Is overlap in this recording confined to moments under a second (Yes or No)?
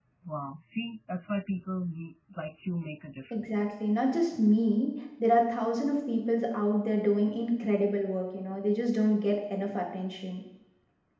Yes